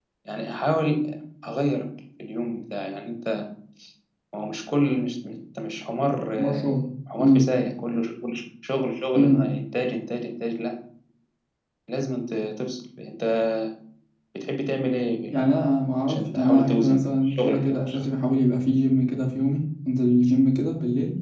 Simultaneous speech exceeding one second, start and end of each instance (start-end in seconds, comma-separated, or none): 16.1-18.0